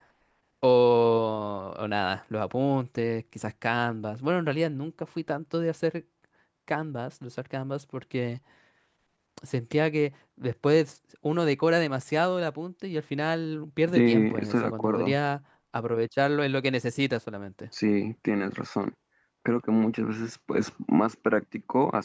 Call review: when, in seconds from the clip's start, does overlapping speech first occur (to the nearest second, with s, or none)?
14 s